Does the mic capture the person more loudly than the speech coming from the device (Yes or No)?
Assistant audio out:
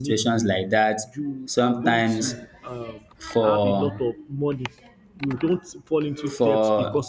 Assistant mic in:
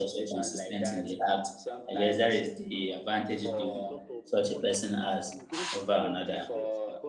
Yes